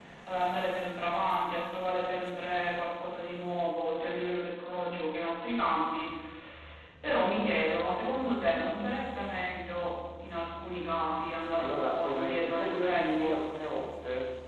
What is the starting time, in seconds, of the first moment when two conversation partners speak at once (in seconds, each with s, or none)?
11.6 s